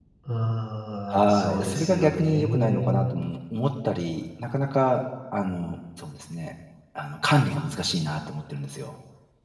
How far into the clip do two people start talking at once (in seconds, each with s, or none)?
1.1 s